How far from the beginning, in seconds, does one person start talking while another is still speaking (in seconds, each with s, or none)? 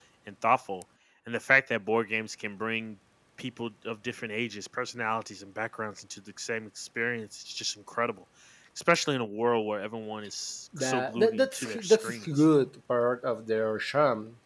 10.7 s